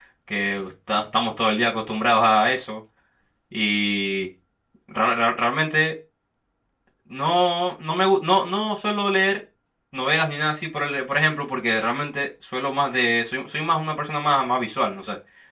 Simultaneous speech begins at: none

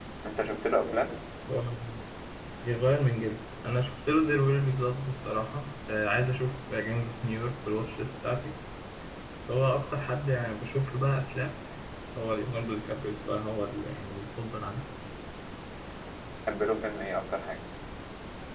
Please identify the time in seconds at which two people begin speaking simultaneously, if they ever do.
none

